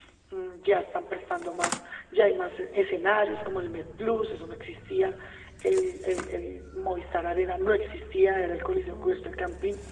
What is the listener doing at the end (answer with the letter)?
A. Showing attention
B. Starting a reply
A